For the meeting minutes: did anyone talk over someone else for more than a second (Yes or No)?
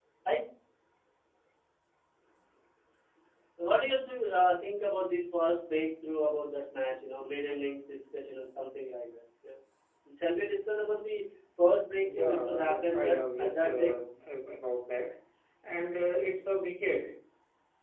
Yes